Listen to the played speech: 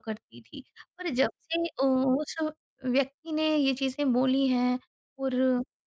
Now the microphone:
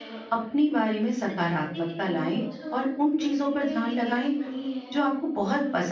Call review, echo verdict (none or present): present